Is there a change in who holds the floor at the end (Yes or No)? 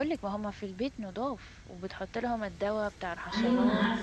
Yes